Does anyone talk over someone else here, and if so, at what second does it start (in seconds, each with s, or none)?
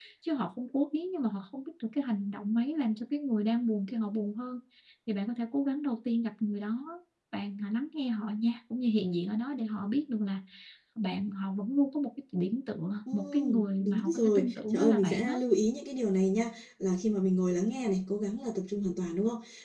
13.1 s